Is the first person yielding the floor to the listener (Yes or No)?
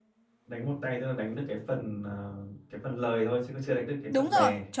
Yes